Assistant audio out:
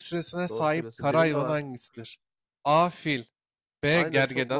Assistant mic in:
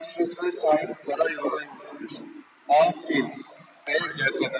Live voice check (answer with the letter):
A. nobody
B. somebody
A